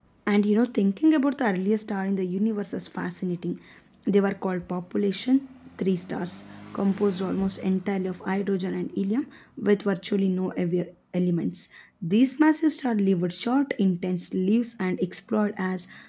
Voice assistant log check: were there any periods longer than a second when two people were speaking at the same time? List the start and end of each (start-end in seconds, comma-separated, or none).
none